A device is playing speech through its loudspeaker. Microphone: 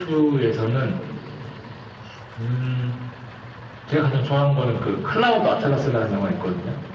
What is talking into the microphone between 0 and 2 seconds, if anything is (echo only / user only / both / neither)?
echo only